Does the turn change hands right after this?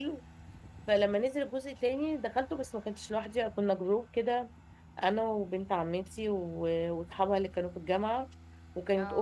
No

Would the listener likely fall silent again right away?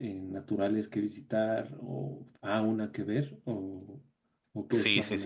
No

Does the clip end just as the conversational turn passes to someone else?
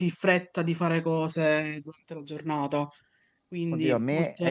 Yes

